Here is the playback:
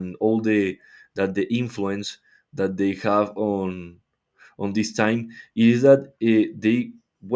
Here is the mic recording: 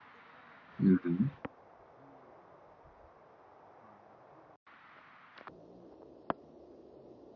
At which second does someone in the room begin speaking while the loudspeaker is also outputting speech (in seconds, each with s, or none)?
0.8 s